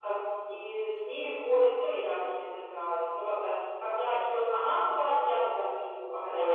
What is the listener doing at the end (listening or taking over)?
taking over